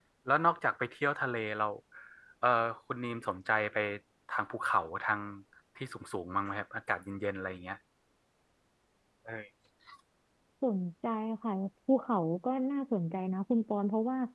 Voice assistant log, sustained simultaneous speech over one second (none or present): none